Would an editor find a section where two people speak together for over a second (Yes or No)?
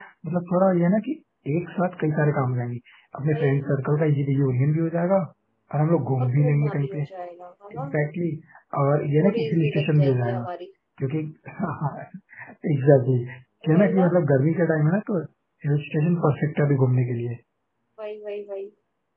Yes